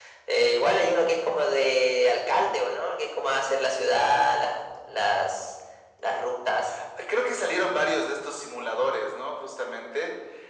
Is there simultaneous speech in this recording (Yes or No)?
No